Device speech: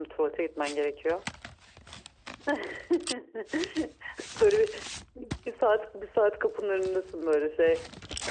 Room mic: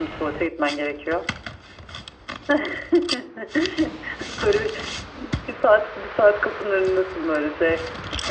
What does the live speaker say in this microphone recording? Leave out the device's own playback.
none

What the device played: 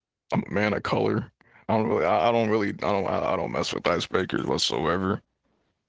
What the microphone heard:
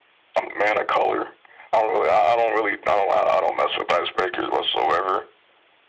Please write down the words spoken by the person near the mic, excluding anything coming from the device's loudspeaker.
none

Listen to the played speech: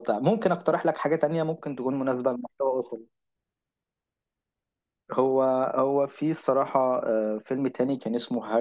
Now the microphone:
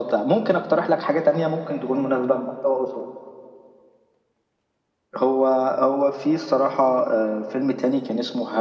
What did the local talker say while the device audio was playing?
none

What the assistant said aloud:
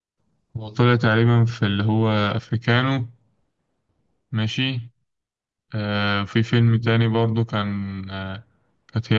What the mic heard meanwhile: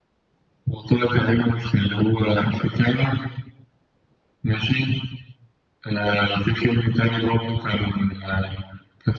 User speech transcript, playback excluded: none

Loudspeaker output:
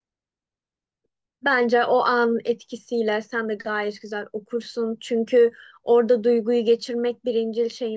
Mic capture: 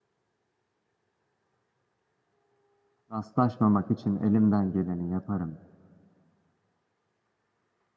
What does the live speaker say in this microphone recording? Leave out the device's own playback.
Rastlaşmamak için elimden geleni yaparım.

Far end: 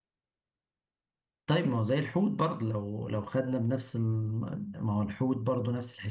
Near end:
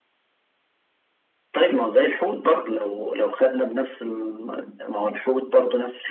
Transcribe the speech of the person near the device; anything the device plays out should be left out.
none

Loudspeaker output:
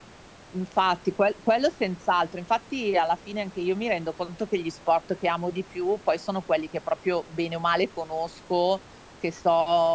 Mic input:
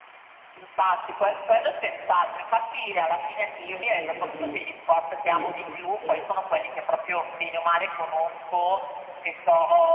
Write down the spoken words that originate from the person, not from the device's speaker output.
Mm, mm, mm, mm. Sì, sì, sì.

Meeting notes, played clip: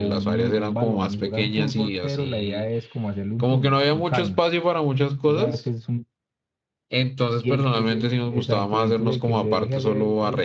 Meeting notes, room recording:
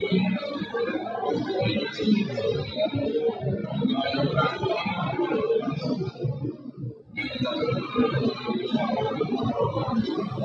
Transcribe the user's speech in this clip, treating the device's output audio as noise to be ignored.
Ujú,

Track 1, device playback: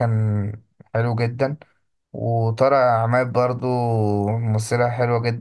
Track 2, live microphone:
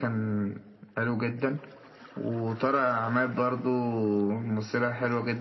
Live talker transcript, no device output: none

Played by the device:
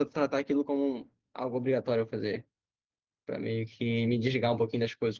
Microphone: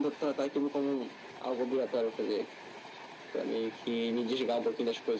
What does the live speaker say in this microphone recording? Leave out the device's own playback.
none

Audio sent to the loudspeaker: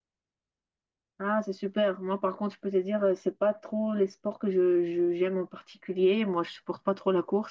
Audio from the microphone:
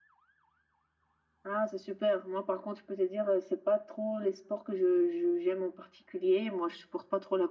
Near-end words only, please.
none

